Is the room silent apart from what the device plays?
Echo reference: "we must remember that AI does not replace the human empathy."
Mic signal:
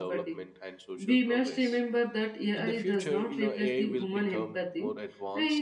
No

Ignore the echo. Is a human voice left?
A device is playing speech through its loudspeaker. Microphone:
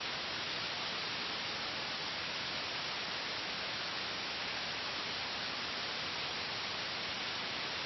No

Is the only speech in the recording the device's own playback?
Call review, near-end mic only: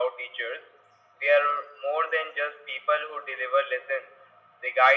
Yes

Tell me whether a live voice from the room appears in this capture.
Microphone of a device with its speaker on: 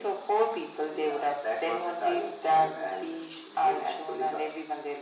No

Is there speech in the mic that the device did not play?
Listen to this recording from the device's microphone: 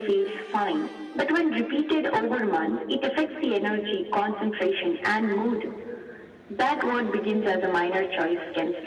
No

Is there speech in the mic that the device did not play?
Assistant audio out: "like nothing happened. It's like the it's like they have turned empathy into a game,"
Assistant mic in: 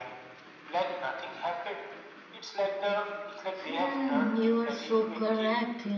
Yes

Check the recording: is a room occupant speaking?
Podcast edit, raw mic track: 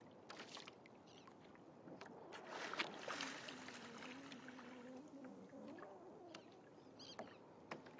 No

